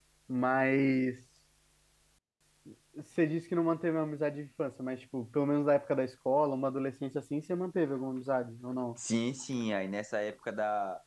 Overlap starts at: none

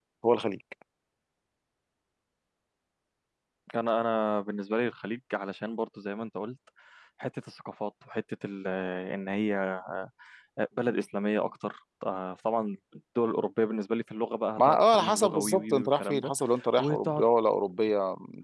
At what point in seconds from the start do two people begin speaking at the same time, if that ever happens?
14.6 s

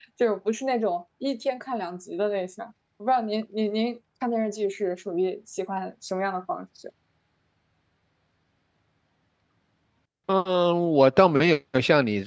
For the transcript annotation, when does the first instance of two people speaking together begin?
none

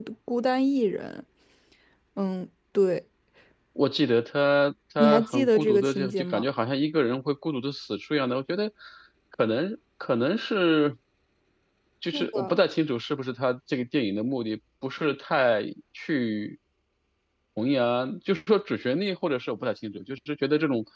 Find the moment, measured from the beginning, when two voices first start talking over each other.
5.0 s

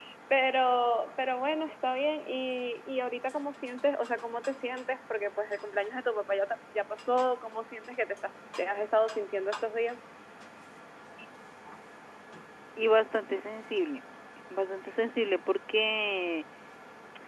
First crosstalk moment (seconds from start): none

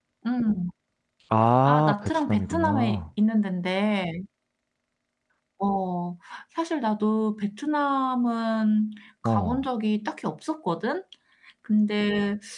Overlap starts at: 1.6 s

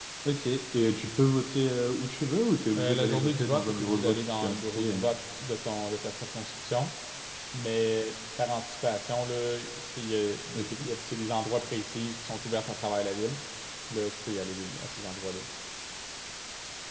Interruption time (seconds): 2.7 s

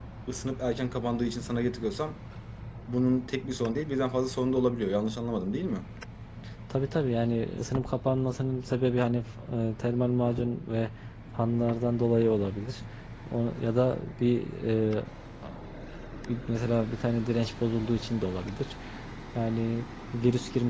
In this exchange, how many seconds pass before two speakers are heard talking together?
none

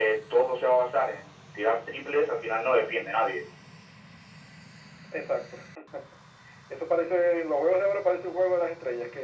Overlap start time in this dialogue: none

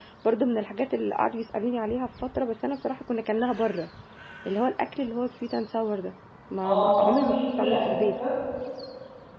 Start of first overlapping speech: 6.6 s

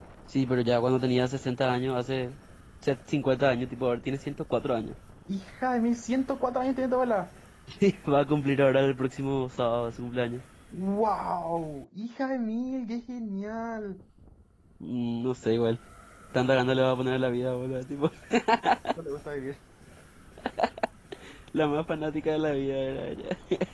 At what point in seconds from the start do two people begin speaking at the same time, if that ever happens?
none

